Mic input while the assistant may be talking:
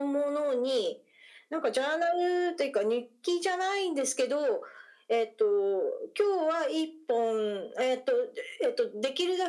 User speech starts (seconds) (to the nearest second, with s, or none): none